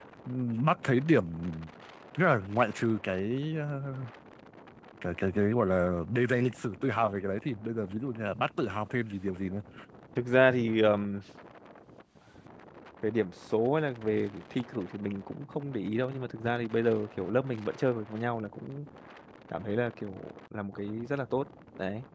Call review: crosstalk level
none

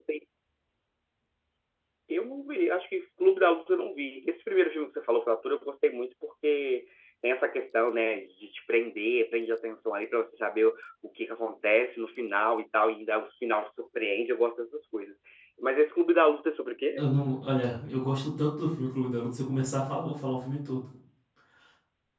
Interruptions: none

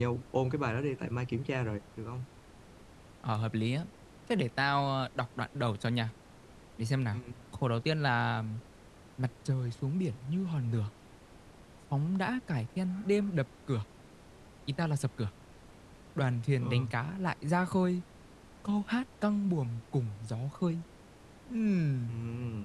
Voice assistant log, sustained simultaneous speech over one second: none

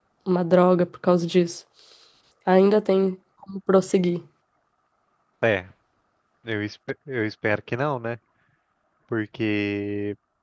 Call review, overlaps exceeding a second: none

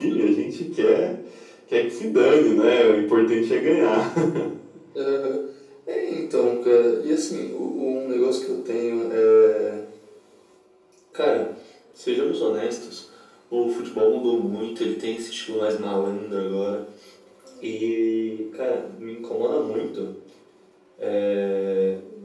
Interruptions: none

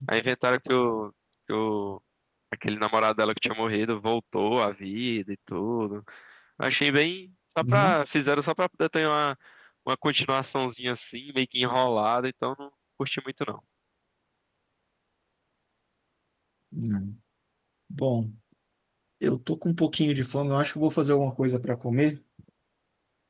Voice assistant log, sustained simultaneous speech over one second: none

